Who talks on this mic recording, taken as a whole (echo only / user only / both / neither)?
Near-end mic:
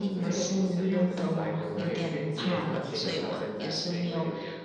both